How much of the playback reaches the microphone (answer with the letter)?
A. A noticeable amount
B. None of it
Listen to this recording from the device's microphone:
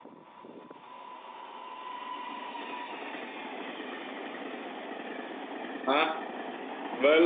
B